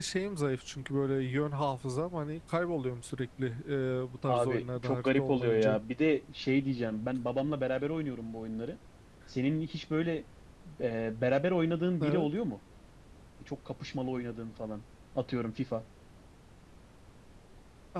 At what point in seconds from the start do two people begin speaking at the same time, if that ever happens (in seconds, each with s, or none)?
4.3 s